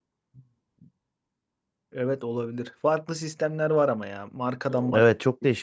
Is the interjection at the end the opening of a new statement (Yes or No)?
Yes